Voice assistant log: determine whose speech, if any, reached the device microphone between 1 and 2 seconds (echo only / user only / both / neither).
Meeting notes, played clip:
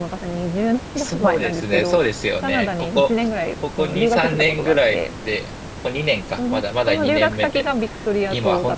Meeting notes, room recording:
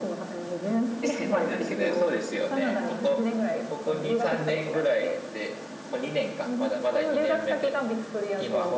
both